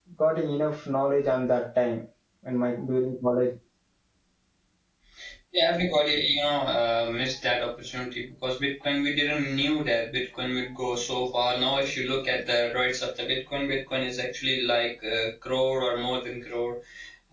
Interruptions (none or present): none